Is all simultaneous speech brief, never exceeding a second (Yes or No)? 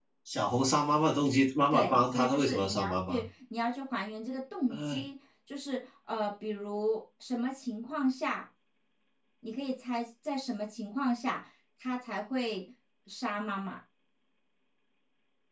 No